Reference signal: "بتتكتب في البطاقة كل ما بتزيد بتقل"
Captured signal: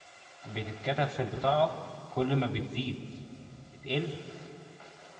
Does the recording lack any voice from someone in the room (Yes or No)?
Yes